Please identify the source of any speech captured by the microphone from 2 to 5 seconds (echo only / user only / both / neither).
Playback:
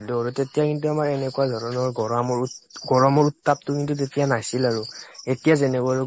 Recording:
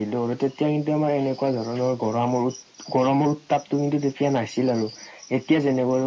echo only